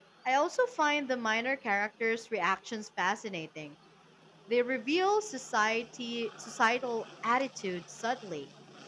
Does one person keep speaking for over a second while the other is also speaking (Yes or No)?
No